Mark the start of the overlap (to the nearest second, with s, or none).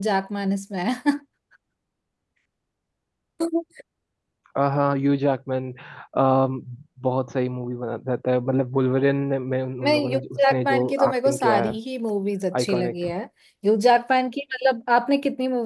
10 s